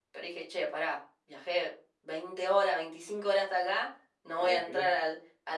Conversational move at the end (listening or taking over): listening